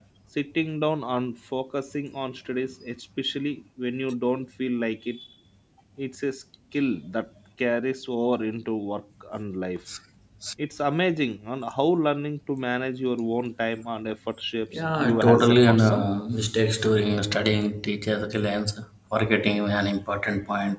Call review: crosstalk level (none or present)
present